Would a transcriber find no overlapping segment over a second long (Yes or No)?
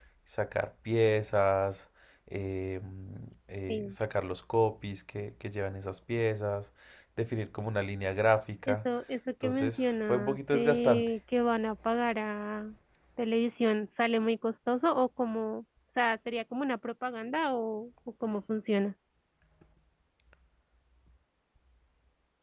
No